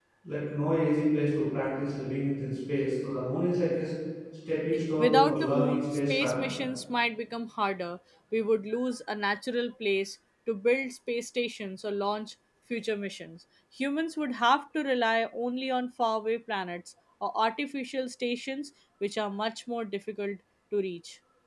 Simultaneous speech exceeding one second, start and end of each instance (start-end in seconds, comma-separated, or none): 5.0-6.5